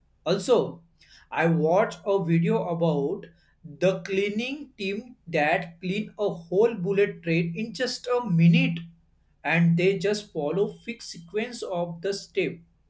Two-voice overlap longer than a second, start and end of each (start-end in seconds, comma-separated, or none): none